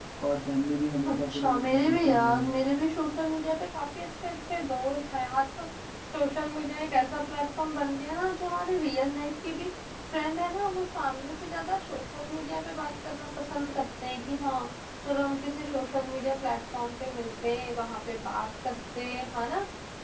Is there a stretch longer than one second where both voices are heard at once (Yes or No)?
Yes